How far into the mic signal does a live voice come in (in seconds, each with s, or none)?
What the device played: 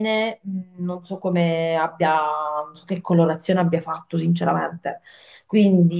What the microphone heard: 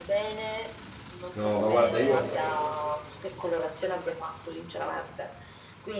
1.3 s